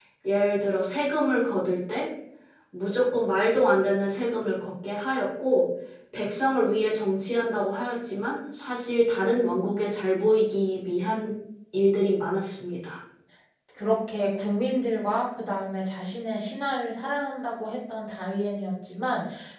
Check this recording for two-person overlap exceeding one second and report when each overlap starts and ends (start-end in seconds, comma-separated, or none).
none